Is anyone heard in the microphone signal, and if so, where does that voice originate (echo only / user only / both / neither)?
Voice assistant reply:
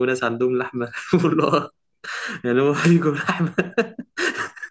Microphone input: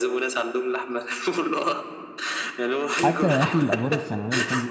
both